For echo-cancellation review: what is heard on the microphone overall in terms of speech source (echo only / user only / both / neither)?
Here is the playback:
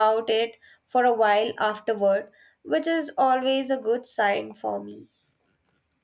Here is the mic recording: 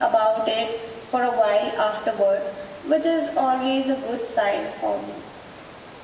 echo only